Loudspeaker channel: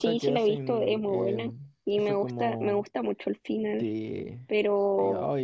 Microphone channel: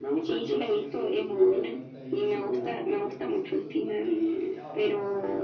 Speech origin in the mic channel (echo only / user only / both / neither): both